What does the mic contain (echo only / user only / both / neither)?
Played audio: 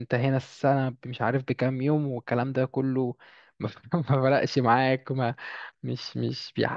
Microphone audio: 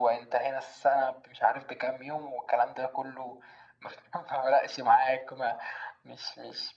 echo only